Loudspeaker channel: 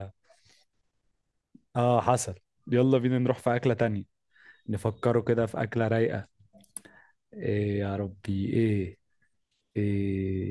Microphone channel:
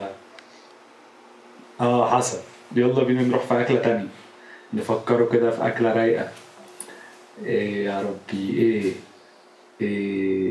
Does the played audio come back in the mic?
Yes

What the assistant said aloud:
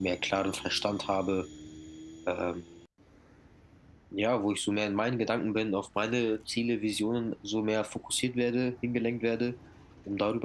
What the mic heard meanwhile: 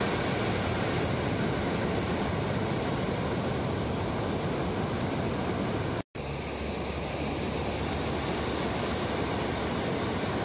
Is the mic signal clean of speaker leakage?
Yes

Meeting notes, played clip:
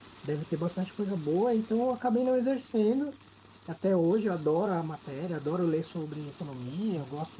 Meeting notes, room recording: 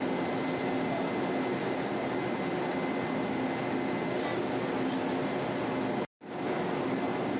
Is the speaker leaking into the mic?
No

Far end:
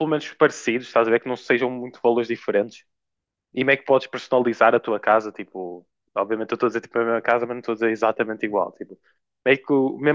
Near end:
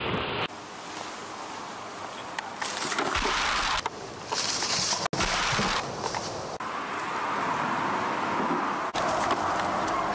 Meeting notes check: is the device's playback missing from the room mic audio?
Yes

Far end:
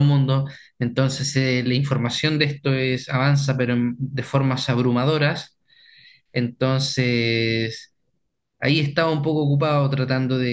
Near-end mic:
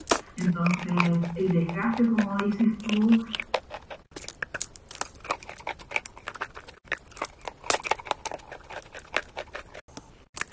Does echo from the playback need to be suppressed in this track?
No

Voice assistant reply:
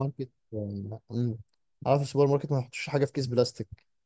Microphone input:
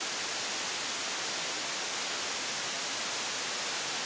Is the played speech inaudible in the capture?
Yes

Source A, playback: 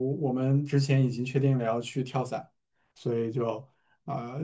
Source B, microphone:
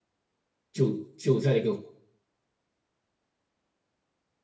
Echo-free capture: Yes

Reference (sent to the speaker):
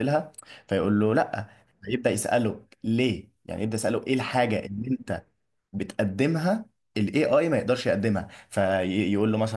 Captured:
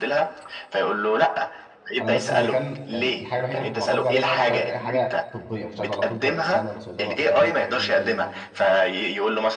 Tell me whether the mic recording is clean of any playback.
No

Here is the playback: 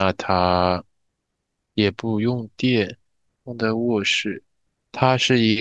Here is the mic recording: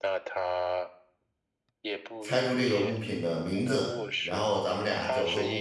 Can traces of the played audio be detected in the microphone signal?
Yes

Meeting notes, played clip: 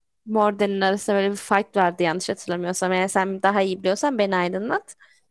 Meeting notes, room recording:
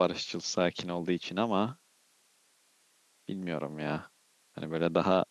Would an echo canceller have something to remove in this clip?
No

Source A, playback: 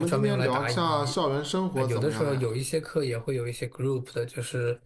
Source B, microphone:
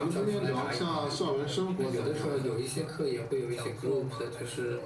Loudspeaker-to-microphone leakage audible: Yes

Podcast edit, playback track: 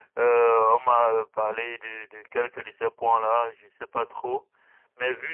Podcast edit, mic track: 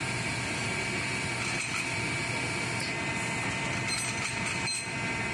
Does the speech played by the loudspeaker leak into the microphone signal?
No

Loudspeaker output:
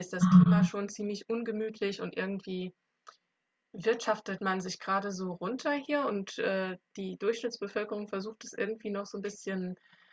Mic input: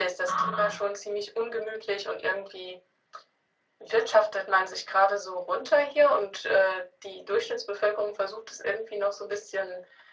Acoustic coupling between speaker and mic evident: Yes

